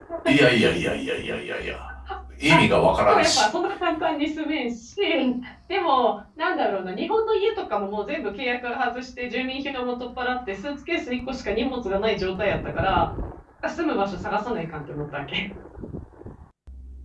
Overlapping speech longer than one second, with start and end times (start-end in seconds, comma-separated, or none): none